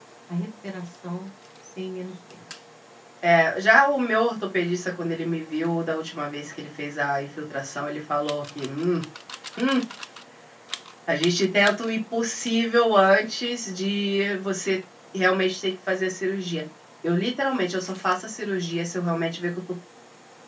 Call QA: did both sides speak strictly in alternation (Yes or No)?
Yes